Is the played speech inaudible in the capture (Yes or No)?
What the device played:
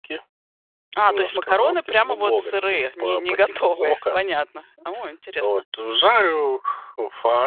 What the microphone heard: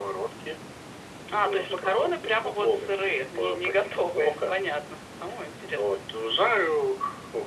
No